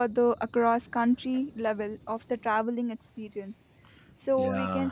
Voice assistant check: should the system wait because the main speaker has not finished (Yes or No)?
Yes